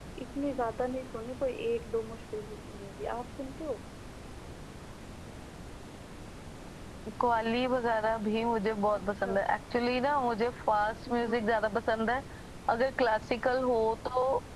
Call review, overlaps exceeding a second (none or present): none